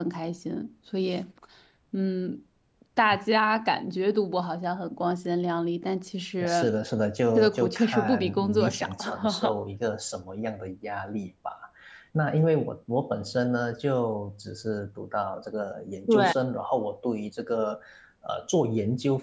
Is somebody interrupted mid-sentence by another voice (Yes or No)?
Yes